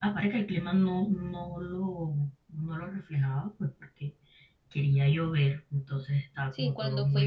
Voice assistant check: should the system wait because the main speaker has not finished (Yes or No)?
No